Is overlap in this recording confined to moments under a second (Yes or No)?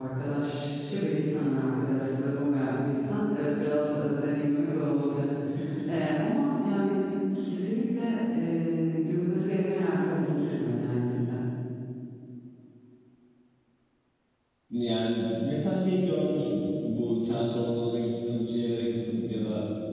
Yes